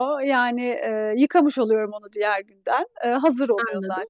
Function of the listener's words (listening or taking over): listening